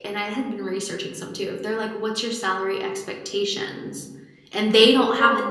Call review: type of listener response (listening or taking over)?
taking over